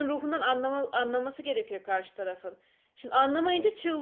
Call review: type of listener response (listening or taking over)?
listening